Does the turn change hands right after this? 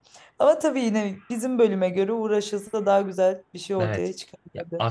Yes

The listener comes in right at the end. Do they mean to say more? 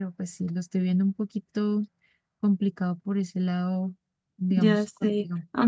Yes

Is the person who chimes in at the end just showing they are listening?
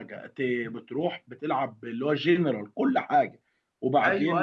No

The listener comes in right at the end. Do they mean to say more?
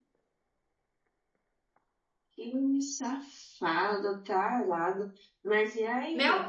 Yes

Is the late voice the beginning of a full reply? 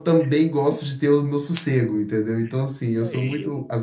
No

